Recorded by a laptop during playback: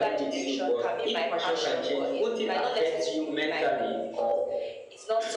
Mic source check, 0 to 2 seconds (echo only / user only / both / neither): echo only